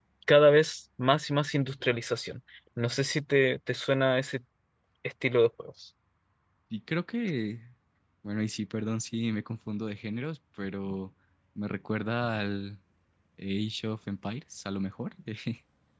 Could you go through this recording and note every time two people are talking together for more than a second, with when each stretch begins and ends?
none

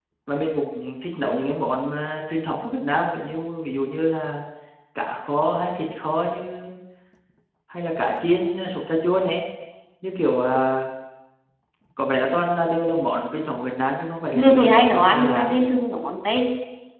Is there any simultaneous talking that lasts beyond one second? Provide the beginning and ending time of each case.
14.3-15.5

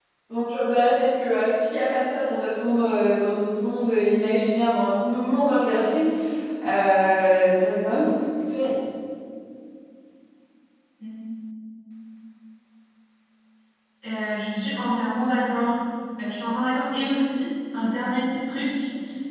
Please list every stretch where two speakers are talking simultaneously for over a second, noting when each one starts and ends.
none

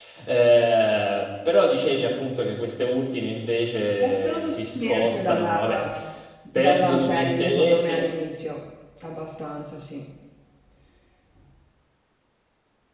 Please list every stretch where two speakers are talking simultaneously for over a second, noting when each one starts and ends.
4.0-5.6, 6.5-8.0

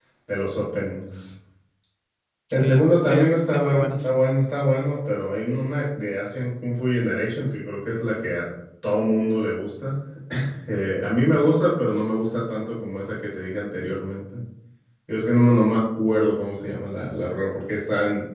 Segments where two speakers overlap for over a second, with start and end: 2.5-4.1

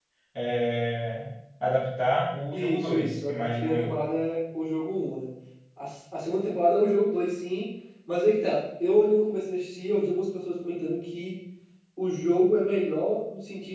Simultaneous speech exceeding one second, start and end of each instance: 2.5-3.9

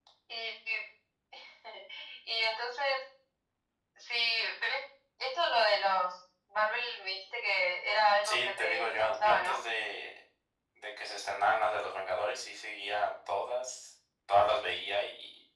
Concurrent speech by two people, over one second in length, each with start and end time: 8.2-9.6

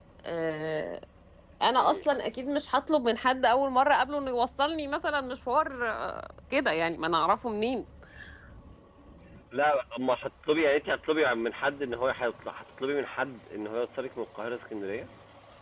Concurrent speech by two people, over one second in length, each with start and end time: none

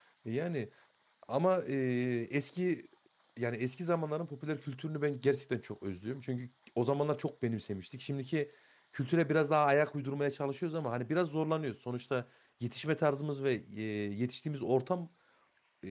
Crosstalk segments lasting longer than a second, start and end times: none

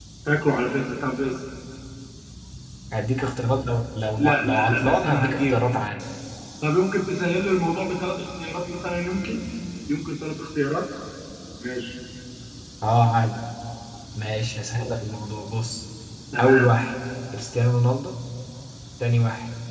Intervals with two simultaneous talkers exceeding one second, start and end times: 4.2-5.6

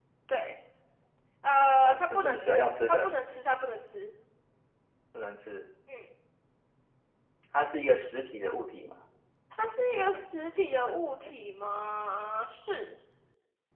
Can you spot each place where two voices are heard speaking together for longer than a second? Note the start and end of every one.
1.8-3.1

